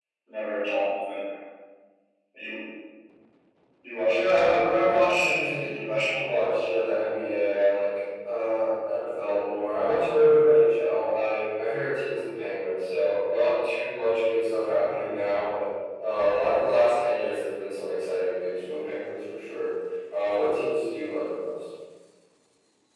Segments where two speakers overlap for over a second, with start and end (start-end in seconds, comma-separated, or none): 4.0-6.7